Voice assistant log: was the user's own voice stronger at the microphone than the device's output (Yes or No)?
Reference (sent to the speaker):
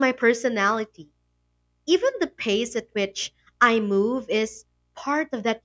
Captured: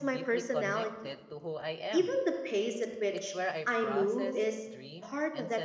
No